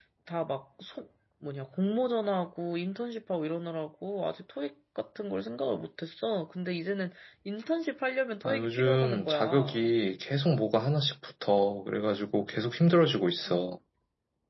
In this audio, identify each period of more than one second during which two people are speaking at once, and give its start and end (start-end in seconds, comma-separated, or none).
8.4-9.9